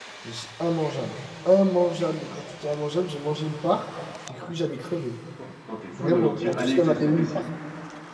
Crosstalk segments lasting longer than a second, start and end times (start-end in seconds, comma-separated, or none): 5.9-7.4